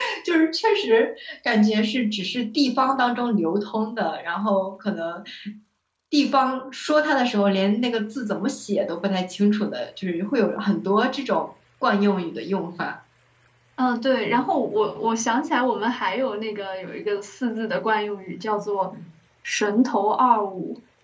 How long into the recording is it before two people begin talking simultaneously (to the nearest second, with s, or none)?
none